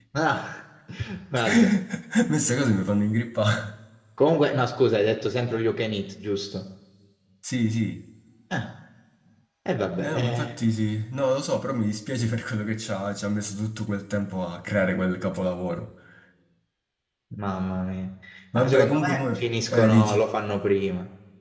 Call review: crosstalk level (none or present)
present